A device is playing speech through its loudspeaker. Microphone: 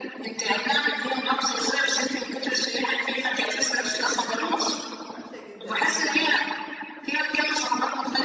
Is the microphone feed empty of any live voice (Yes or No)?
No